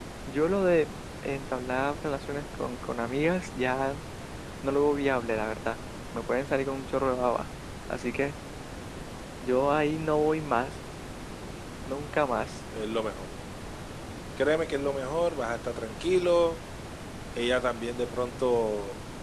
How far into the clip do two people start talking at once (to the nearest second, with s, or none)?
none